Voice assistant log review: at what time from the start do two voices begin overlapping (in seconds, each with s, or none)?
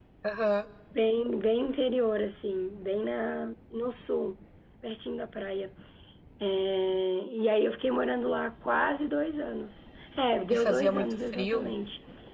10.5 s